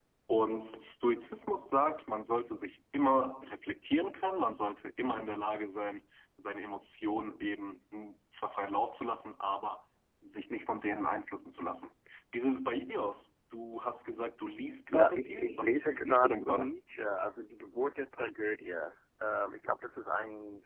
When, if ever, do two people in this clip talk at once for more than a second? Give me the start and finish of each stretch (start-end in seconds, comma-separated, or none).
14.9-16.7